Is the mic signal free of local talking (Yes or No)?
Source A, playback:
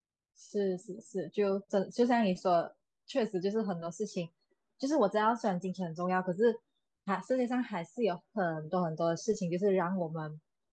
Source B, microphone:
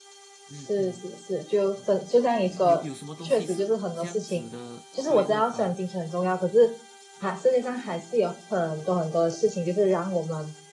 No